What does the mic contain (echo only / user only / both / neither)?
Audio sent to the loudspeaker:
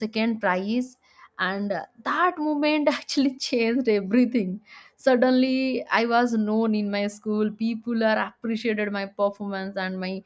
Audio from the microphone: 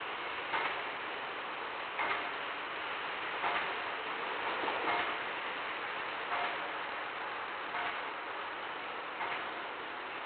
neither